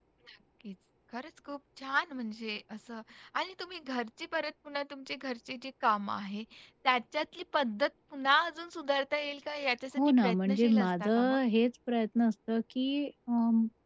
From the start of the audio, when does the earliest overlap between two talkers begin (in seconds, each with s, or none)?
10.0 s